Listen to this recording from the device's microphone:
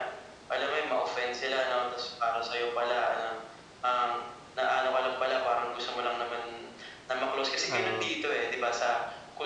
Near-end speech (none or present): present